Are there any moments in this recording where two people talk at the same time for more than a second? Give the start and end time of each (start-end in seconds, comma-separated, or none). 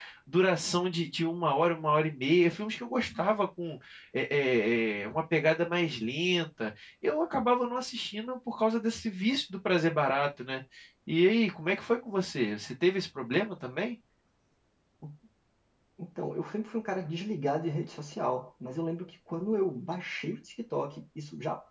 none